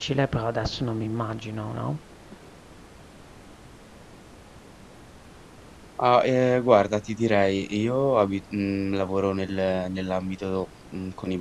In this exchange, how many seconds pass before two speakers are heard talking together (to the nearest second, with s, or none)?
none